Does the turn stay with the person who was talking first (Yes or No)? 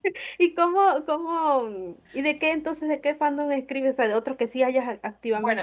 No